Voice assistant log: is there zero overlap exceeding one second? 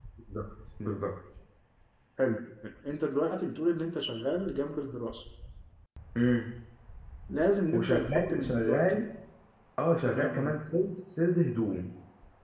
No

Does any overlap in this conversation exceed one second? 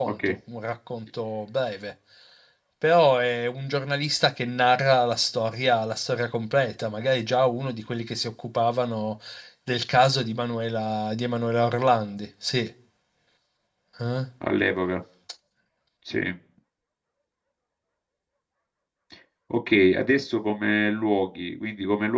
No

